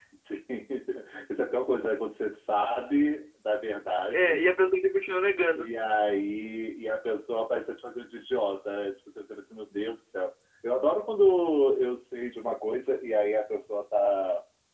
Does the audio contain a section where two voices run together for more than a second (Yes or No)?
No